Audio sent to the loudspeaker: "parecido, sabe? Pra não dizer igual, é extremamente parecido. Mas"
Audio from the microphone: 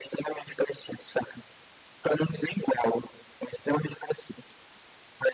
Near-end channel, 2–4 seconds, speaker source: echo only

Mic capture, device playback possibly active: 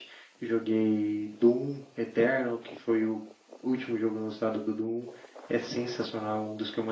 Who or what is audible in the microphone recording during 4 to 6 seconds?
echo only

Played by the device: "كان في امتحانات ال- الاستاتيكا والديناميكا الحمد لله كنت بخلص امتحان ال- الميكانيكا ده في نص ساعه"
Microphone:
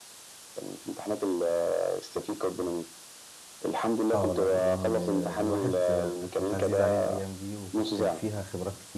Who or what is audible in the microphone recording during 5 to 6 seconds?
both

